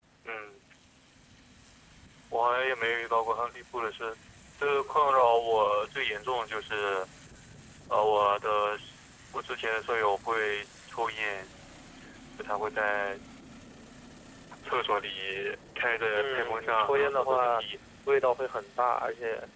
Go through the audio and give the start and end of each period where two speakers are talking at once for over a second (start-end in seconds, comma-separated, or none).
16.1-17.6